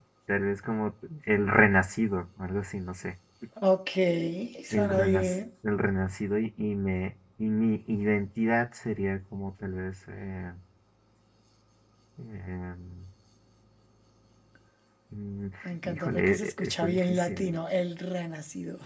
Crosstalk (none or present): present